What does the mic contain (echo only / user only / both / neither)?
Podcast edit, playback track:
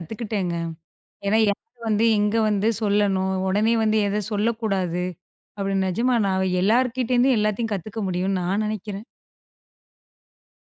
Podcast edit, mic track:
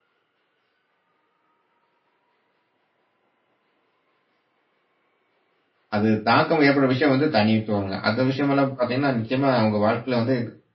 user only